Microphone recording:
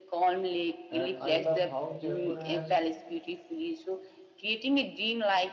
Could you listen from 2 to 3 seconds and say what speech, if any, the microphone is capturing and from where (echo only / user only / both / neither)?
both